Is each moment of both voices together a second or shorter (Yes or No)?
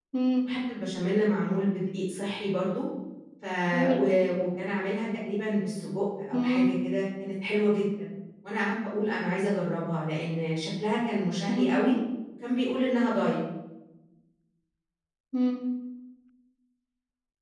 Yes